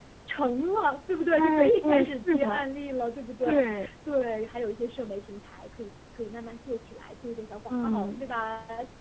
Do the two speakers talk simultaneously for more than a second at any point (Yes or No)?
Yes